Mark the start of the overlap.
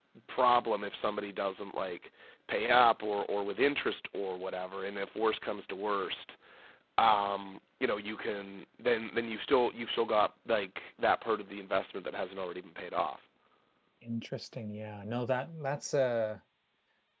none

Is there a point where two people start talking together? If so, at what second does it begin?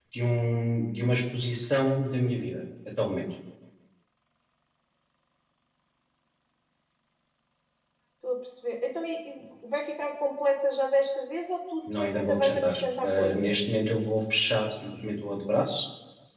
11.9 s

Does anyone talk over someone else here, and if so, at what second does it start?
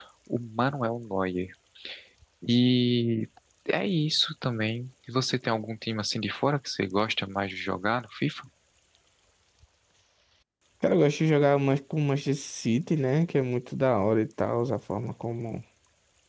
none

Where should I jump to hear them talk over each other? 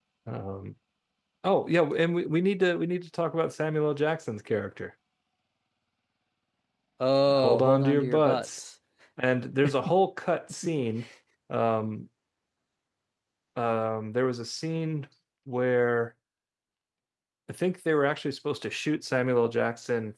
7.3 s

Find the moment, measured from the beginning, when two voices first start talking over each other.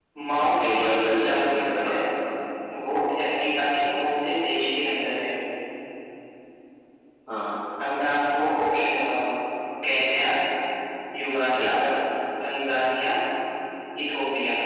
0.6 s

